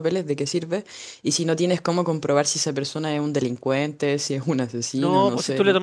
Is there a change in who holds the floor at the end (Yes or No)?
Yes